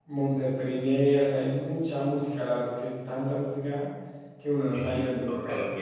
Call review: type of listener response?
taking over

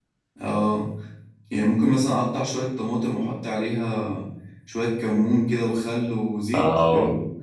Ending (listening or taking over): taking over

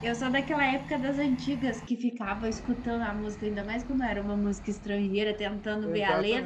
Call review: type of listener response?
listening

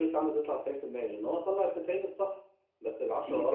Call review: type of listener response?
listening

